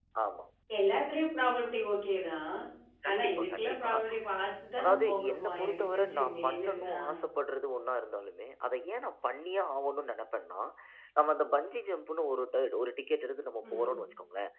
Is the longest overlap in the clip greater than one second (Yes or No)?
Yes